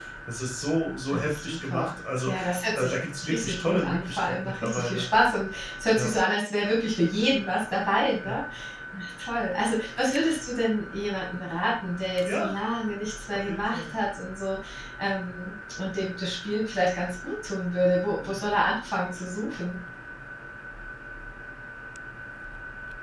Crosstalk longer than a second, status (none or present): present